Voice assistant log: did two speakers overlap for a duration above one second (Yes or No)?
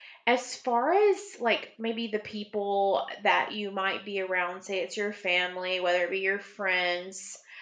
No